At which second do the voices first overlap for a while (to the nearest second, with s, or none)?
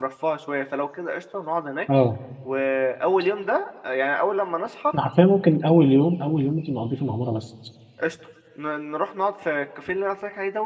none